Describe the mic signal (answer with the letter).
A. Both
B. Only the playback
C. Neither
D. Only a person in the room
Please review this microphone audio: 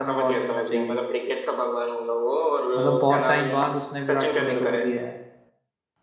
A